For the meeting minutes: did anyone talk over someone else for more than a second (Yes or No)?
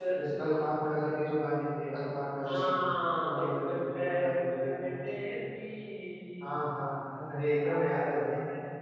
Yes